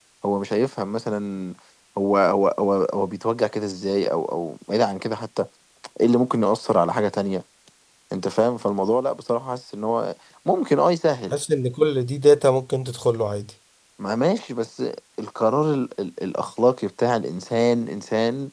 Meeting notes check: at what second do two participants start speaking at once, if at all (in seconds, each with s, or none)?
none